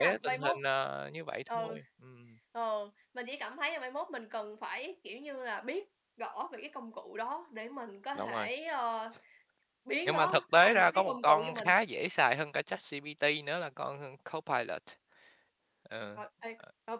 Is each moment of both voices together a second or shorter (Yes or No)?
No